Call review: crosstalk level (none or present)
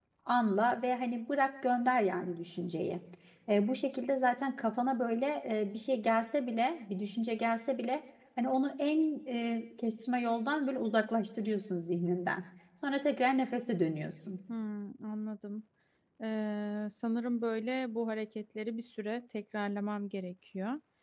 none